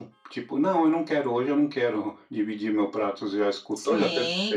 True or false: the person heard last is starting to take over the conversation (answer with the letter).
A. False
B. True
B